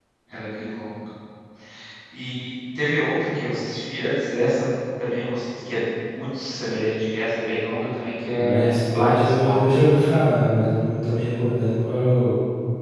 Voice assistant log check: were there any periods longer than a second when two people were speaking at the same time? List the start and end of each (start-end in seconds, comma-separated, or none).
8.3-9.6